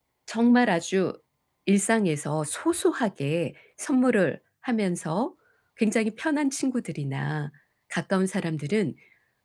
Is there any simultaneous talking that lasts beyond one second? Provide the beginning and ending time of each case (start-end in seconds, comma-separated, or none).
none